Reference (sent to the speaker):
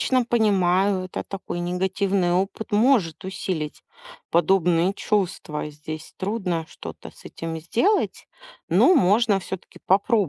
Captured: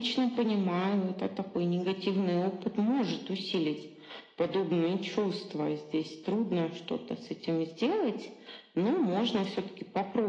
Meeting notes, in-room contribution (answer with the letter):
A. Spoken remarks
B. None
B